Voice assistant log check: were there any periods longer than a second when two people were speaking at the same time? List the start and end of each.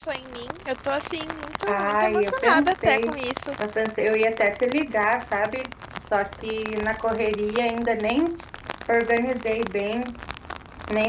1.6-3.2

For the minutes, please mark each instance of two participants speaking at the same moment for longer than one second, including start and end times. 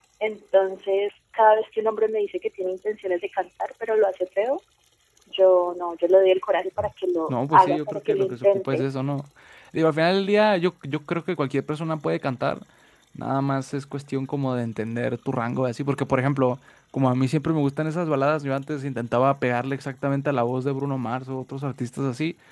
7.3-8.8

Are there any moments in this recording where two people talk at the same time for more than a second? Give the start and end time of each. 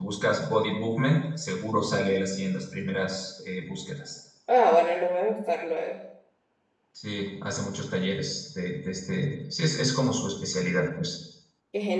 none

